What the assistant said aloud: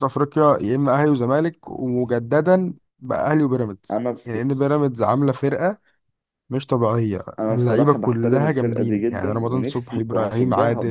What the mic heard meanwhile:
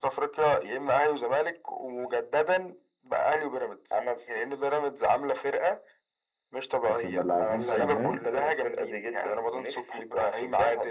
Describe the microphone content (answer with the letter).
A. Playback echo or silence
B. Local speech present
B